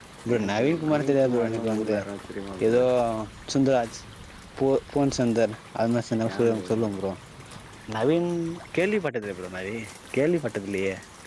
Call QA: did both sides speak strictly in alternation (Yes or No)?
No